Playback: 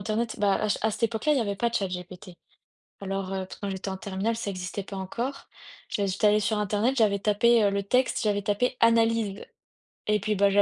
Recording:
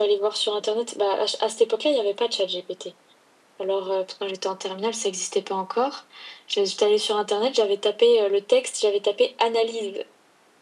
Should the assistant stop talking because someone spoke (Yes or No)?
No